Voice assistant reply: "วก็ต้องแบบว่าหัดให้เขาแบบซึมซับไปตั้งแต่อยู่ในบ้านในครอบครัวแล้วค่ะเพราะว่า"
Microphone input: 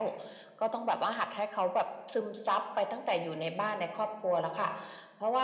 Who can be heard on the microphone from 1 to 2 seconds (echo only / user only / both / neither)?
echo only